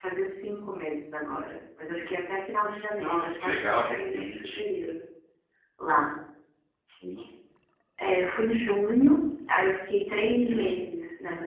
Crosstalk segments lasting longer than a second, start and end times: 3.0-4.6

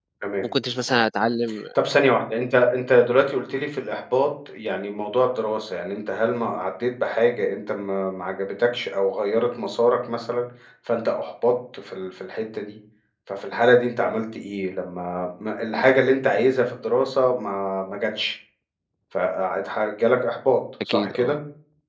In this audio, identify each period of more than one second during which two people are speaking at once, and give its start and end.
none

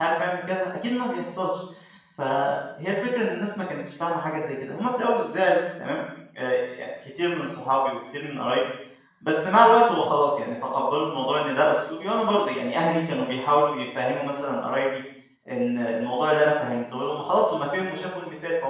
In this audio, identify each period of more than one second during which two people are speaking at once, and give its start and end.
none

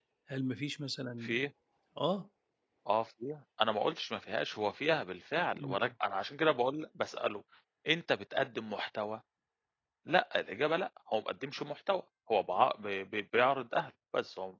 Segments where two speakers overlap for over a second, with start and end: none

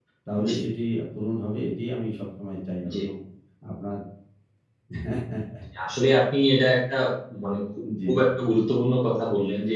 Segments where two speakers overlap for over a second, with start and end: none

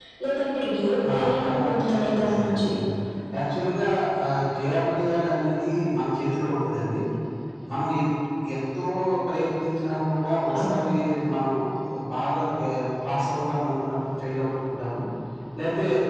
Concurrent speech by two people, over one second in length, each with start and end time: 1.1-2.7

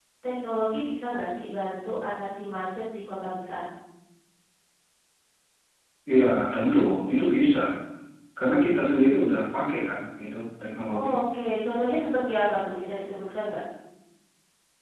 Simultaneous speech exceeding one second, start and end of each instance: none

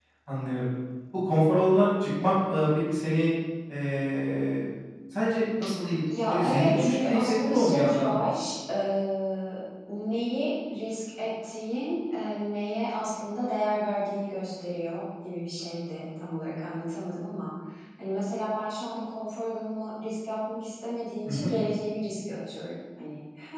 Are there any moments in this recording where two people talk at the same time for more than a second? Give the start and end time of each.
6.3-8.2

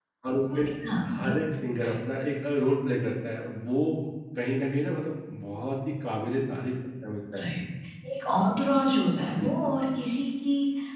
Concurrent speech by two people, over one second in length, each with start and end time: none

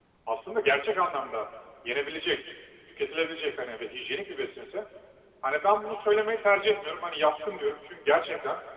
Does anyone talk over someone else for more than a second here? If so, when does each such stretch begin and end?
none

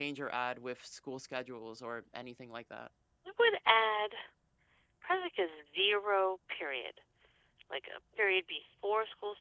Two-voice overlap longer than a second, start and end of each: none

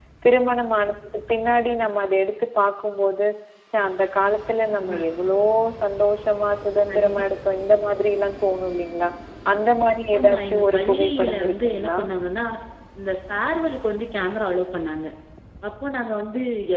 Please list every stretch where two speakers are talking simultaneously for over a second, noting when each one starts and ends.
10.2-12.0

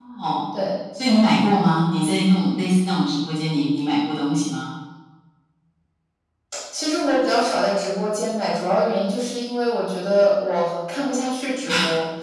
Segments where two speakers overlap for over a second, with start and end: none

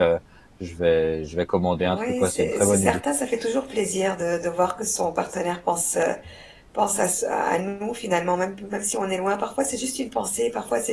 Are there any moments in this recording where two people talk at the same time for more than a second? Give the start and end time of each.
1.8-3.0

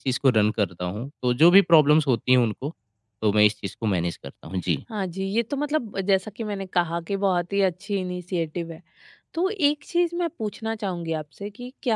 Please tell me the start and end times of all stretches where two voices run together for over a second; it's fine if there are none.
none

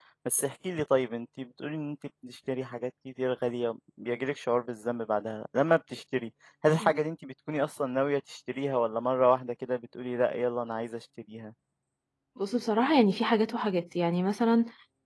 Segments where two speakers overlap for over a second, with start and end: none

